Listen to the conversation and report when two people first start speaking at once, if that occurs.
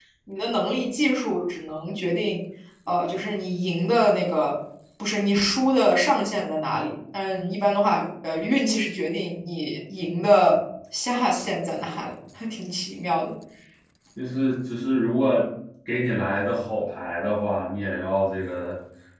none

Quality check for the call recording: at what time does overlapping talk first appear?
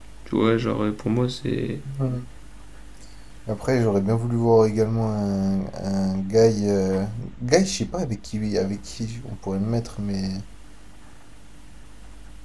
none

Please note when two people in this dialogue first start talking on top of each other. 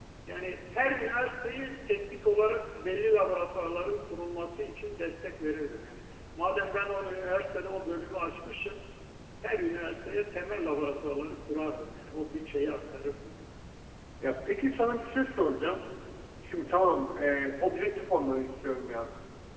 none

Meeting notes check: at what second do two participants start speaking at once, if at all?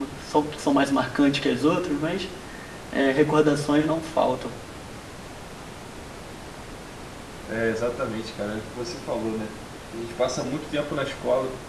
none

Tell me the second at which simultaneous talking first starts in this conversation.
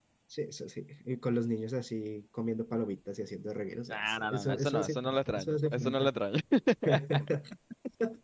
3.9 s

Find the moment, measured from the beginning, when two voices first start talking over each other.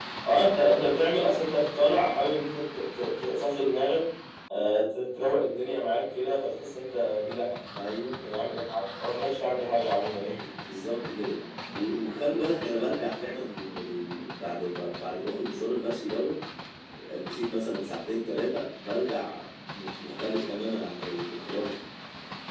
none

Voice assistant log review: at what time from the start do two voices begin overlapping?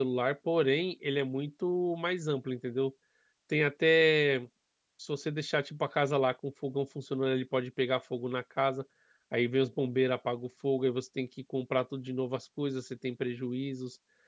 none

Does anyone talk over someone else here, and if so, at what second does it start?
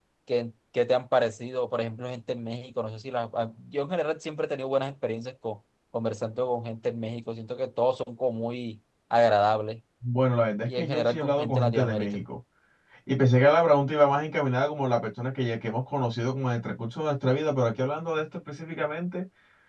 10.7 s

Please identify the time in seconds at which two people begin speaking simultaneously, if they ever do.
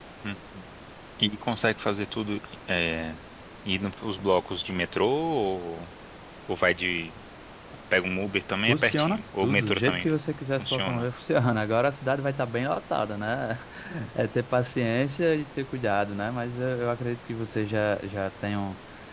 8.7 s

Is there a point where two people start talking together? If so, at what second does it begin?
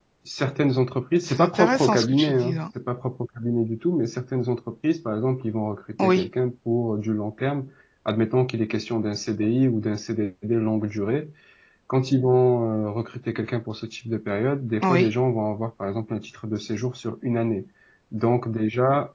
1.3 s

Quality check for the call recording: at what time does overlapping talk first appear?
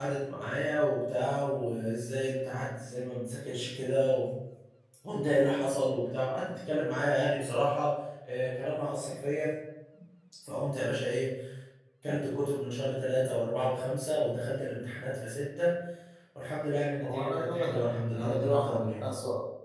17.0 s

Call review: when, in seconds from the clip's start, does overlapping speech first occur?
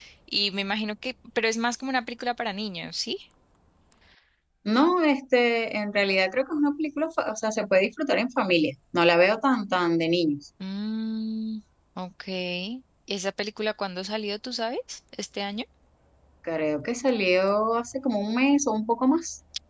none

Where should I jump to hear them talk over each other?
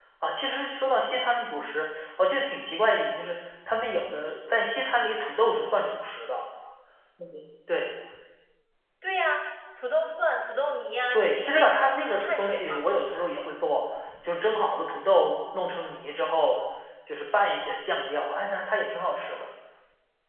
11.1 s

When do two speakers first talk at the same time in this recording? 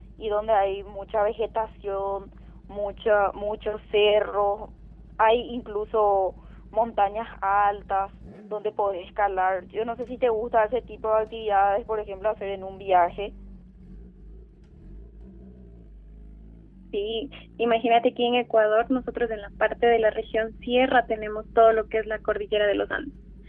none

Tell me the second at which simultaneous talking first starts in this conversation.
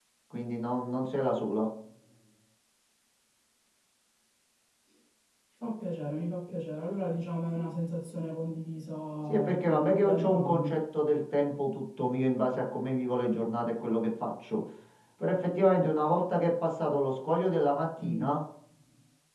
9.3 s

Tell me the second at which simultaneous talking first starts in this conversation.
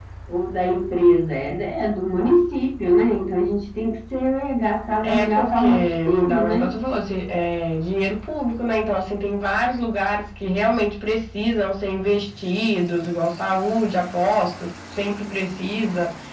5.0 s

